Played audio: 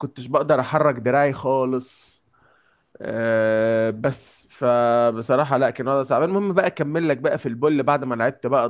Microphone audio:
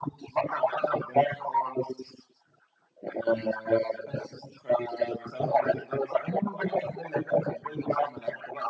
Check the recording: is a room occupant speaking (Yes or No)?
No